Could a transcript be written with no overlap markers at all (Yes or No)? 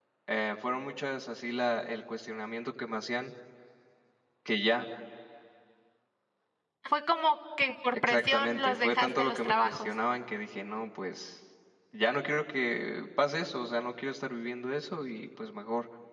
No